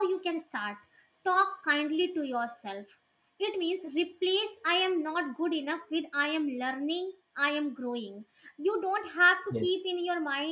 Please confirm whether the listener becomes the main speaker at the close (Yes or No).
No